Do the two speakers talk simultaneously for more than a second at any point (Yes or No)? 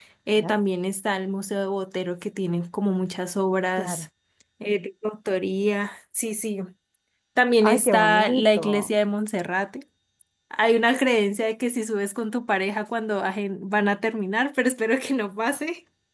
Yes